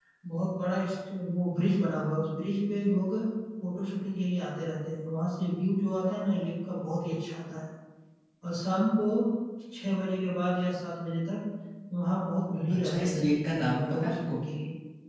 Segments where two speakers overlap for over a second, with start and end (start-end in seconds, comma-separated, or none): 12.7-14.4